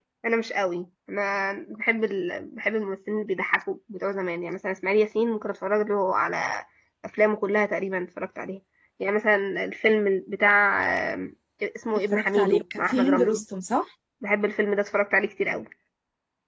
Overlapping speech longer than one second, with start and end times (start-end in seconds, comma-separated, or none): 12.1-13.4